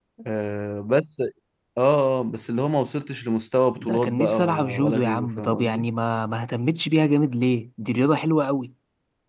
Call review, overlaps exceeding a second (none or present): present